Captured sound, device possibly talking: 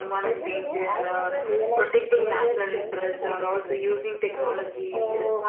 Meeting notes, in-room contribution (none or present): present